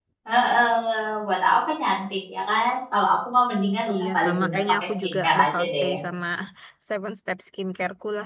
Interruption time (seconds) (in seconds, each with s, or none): 3.9 s